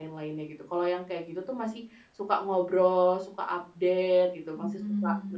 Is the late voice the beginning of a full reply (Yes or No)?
No